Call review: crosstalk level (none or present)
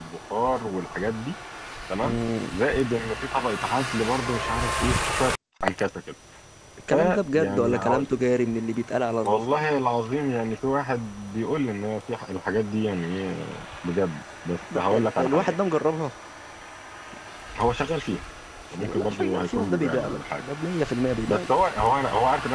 present